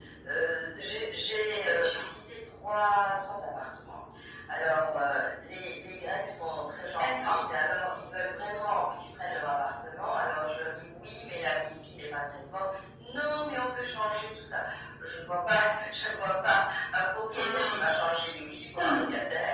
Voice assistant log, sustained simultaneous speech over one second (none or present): none